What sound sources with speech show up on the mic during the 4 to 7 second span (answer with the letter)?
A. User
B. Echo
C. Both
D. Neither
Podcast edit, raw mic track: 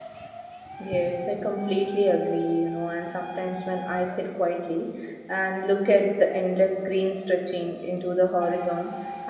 A